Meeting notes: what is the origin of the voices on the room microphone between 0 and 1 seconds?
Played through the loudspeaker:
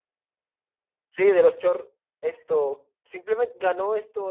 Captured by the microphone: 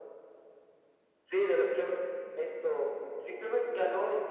neither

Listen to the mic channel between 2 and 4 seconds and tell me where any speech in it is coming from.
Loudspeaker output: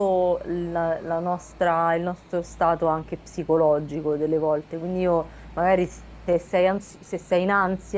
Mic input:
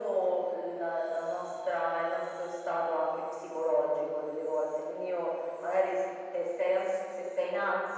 echo only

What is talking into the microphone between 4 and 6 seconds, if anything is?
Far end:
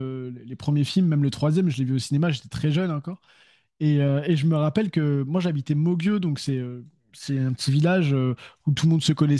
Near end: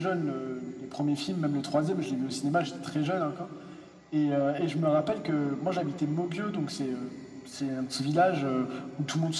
echo only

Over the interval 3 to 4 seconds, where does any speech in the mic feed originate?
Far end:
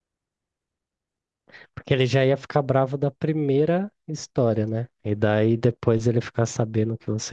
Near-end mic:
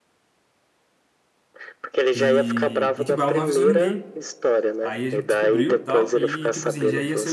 both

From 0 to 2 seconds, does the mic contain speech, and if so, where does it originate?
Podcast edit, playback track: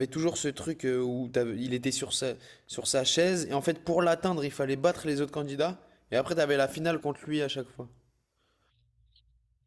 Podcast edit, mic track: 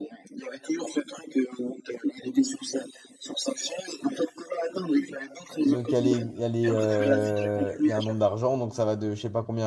echo only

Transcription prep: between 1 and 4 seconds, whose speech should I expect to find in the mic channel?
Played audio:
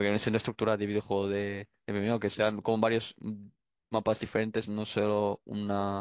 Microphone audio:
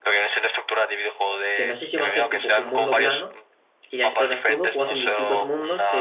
both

